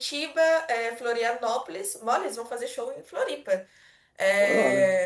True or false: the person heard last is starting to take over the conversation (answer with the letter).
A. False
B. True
A